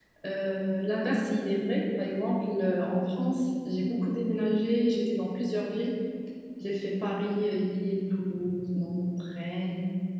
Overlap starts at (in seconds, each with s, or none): none